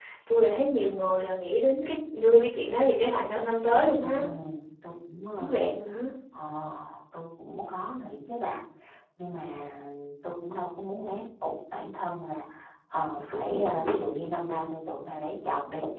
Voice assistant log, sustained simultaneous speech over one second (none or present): none